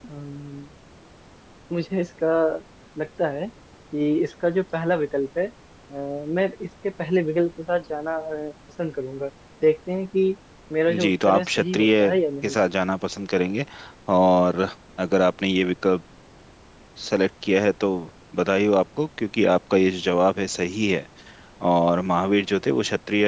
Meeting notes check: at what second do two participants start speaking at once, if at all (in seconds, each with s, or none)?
11.0 s